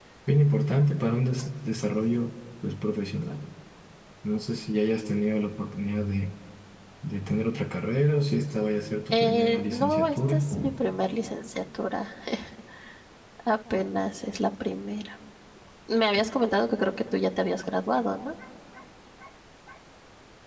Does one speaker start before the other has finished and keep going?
Yes, from 9.1 s

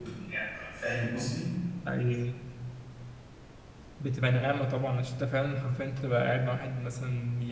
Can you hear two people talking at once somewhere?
No

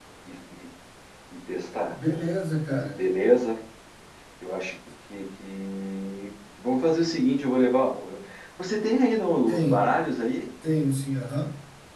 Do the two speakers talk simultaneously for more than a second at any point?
No

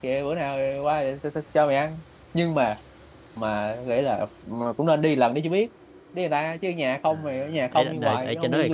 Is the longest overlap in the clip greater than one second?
Yes, from 7.1 s

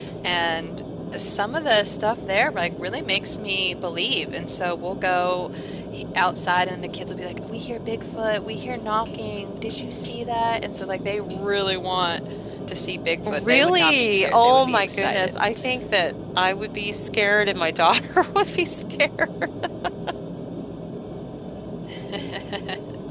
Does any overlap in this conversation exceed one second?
Yes, from 13.3 s

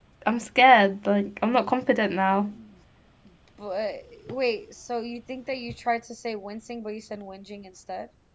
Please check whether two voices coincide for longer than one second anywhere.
No

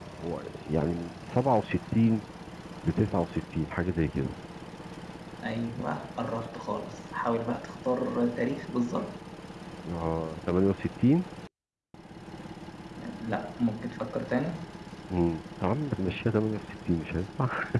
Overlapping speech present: No

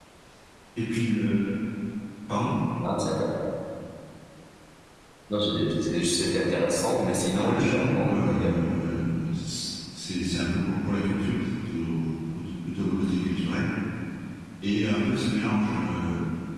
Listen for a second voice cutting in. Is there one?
Yes, from 7.3 s

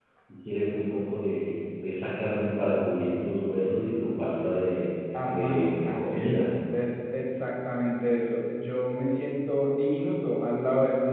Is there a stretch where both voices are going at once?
Yes, from 5.1 s

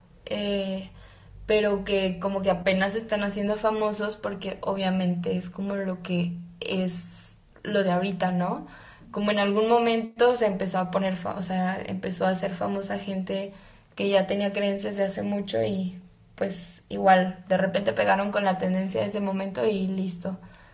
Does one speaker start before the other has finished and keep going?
No

